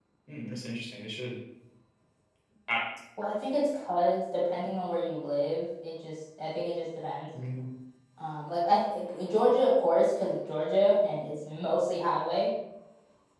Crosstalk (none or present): none